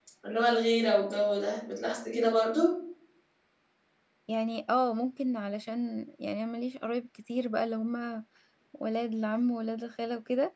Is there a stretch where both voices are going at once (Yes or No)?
No